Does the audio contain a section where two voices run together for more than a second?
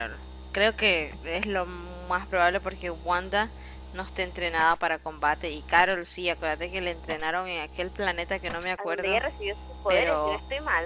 No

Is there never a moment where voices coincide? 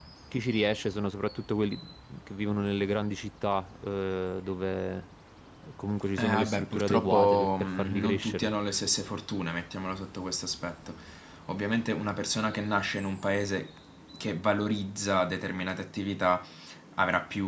No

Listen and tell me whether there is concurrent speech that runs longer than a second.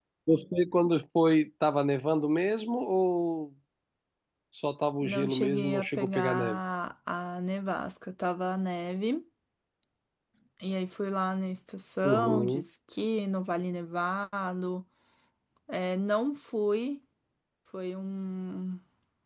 Yes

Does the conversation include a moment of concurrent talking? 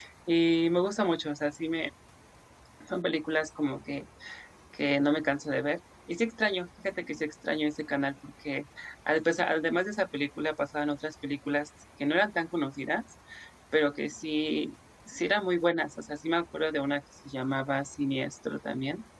No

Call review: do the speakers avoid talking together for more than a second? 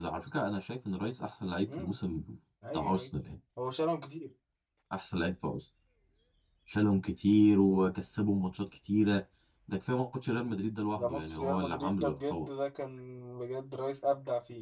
No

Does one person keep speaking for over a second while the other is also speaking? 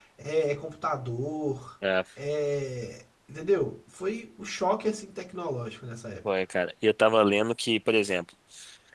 No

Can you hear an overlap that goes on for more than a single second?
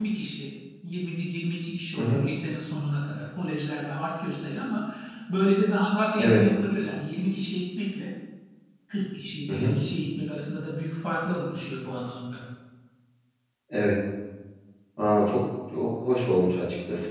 No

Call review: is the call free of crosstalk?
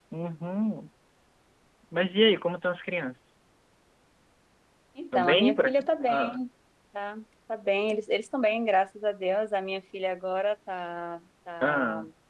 No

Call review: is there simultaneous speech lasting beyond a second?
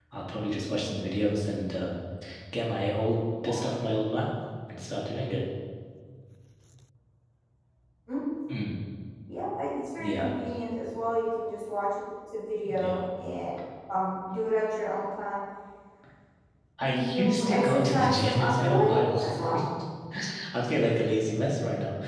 Yes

